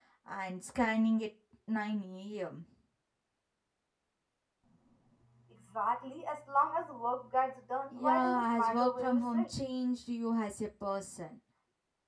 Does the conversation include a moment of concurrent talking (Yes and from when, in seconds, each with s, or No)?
Yes, from 7.9 s